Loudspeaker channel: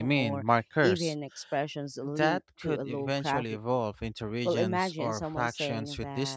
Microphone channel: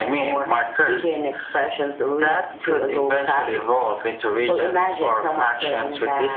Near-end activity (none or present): none